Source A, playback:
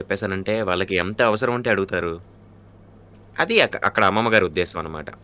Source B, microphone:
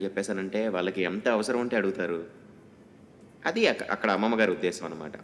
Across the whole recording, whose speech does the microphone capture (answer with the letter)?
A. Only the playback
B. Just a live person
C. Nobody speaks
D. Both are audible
A